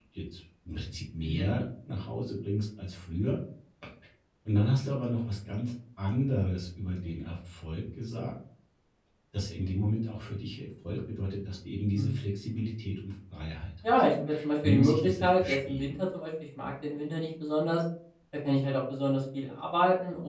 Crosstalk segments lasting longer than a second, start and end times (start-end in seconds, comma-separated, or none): 14.6-15.9